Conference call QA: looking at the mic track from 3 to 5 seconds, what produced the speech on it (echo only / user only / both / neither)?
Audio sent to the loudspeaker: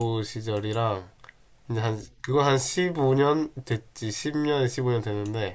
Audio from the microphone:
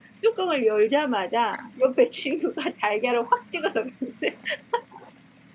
user only